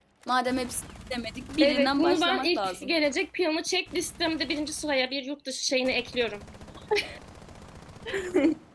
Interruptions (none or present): present